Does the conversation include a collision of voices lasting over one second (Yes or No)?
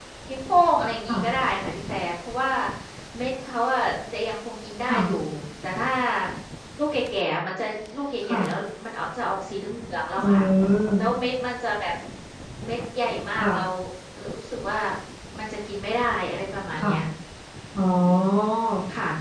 No